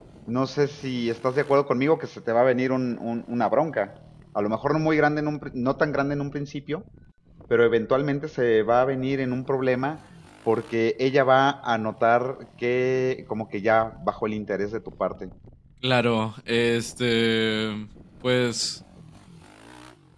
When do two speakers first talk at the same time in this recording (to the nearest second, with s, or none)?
none